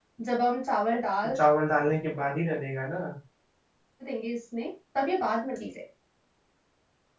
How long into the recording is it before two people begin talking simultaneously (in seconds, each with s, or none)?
none